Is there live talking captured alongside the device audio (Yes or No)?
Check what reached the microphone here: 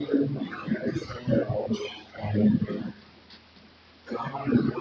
No